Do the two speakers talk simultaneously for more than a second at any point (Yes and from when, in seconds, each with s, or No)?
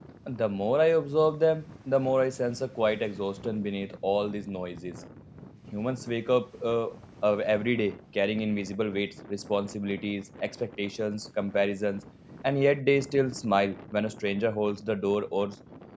No